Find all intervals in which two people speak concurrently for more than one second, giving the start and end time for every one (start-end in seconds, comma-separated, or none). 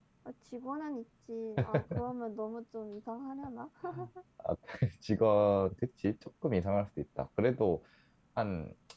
none